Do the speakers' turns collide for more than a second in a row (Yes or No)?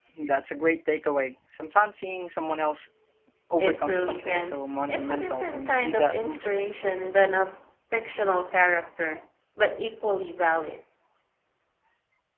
Yes